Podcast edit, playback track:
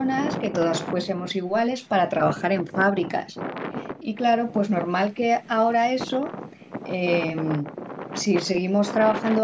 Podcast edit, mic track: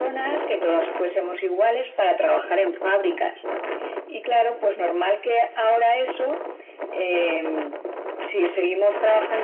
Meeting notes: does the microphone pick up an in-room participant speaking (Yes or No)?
No